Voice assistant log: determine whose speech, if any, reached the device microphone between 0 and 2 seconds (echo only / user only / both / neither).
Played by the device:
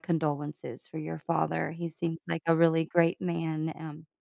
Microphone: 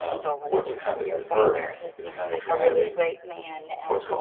both